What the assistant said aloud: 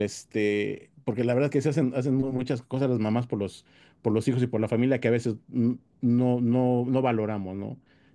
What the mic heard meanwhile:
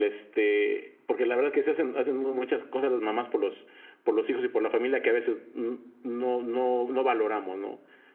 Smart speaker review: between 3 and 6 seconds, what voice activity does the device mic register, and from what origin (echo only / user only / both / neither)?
echo only